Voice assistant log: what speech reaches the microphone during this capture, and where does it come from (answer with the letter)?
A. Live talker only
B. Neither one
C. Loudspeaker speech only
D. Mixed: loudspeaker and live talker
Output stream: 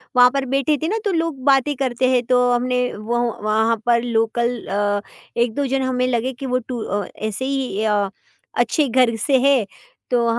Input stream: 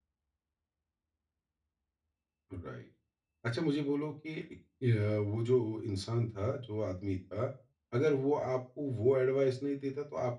A